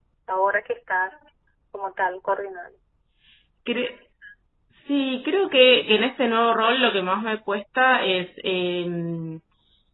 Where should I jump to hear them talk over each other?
none

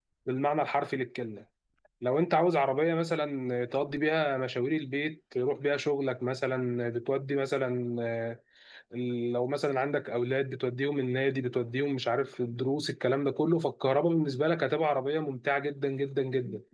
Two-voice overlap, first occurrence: none

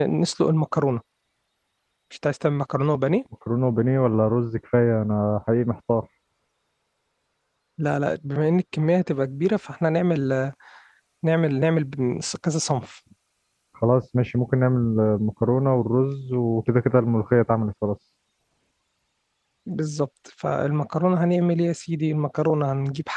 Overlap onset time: none

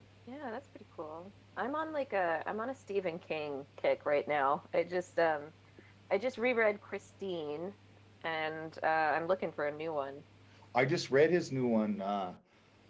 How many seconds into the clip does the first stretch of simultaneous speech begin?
none

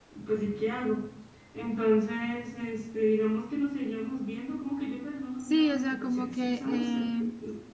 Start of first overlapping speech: 5.4 s

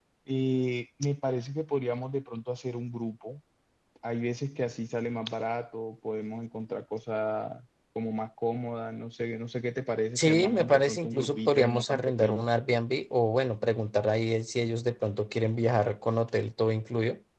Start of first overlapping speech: 10.2 s

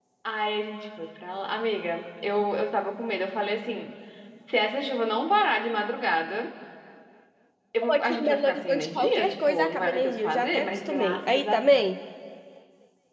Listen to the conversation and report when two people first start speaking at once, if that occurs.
7.8 s

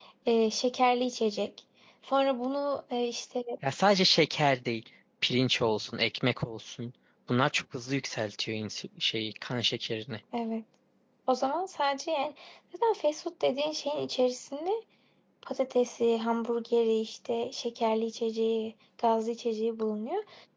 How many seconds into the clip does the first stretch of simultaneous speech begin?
none

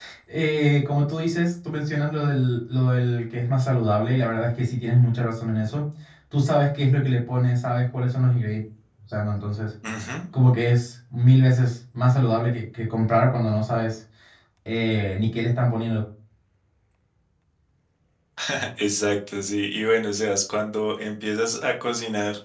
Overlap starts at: none

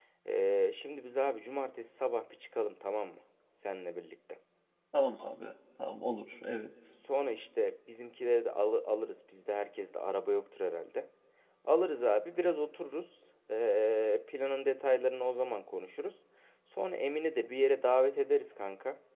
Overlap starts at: none

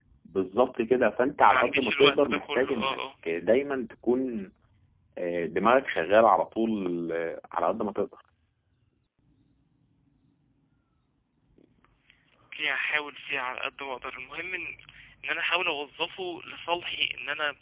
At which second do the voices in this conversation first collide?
1.4 s

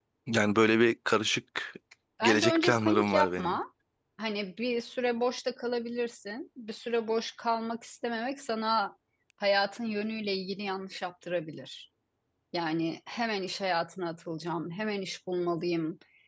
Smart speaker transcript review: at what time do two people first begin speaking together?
2.2 s

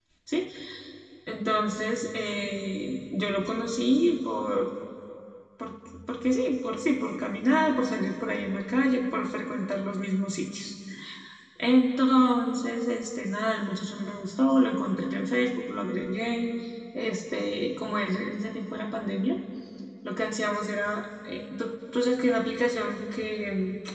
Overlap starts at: none

